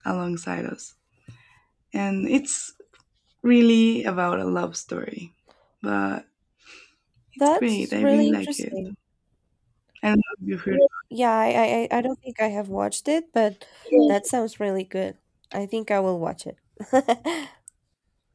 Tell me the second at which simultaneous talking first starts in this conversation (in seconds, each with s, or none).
7.5 s